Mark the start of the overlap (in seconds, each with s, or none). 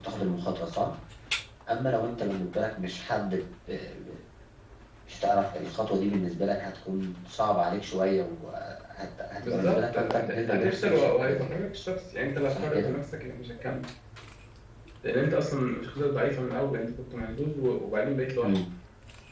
9.4 s